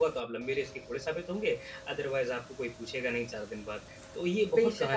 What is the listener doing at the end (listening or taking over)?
taking over